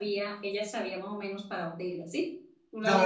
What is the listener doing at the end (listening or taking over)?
taking over